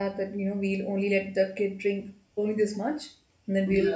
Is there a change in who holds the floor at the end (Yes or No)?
No